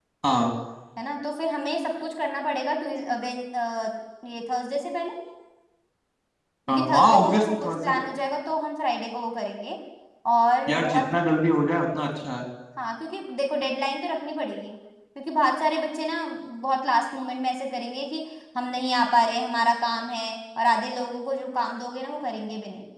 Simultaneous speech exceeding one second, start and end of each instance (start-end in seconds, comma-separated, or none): 6.7-8.1